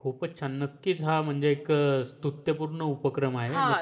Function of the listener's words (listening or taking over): taking over